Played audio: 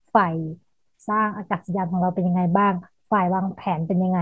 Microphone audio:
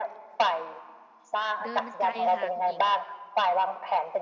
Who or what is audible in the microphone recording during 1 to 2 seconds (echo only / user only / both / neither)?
both